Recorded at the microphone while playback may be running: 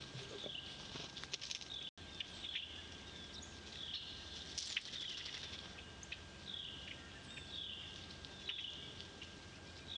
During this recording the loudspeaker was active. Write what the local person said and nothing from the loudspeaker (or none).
none